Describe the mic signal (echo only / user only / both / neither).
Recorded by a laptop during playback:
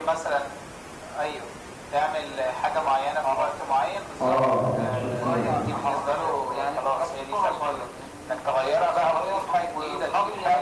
both